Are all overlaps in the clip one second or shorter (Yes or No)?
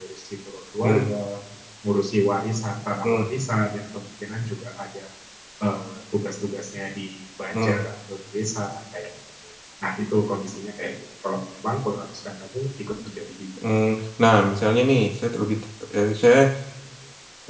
Yes